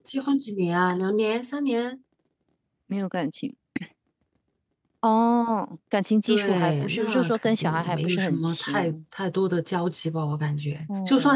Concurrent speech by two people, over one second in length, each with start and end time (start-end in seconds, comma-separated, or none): 6.3-8.9